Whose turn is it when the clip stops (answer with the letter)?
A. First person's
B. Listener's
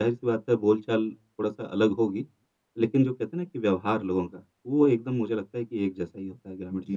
B